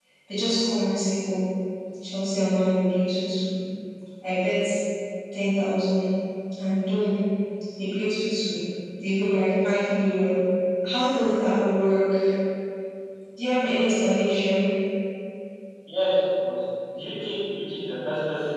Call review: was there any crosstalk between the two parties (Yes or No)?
No